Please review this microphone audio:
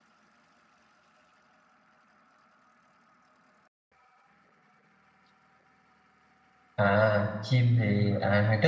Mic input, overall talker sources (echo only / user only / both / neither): user only